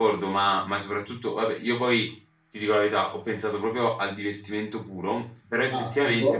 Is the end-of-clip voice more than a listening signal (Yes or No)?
No